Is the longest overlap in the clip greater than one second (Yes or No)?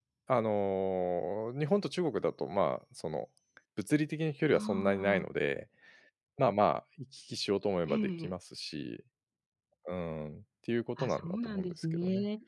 Yes